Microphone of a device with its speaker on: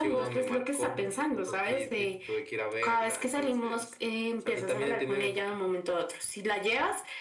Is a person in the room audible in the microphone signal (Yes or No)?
No